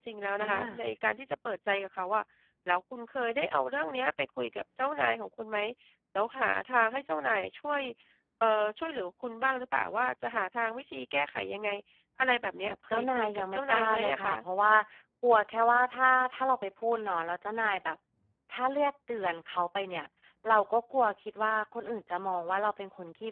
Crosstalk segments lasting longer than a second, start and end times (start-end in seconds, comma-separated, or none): 12.7-14.3